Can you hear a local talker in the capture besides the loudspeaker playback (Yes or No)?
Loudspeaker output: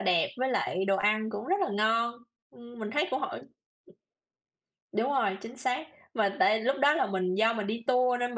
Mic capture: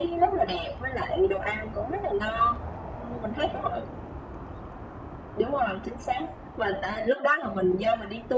No